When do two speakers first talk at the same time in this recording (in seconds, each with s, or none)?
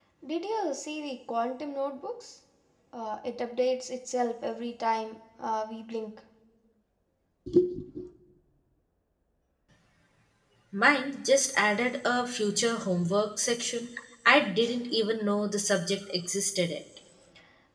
none